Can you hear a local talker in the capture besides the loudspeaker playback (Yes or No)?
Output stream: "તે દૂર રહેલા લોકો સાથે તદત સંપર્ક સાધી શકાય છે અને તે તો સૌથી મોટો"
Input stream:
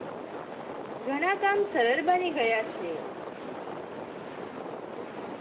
Yes